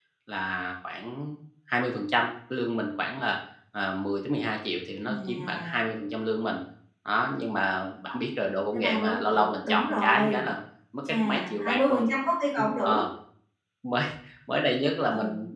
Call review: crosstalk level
present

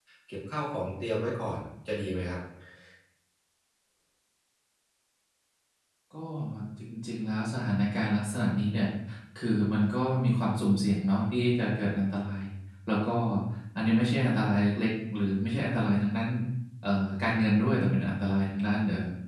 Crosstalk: none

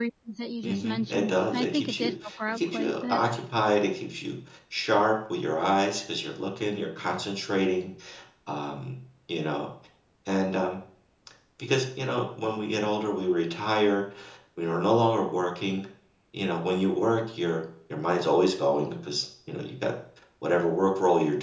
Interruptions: present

